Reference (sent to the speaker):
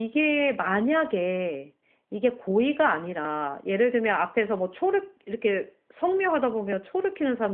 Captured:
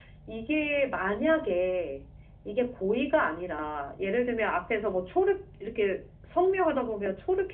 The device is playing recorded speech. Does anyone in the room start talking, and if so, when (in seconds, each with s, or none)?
none